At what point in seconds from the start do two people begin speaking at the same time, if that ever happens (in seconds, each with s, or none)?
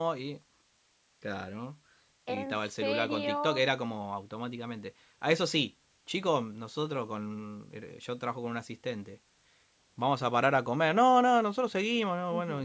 2.3 s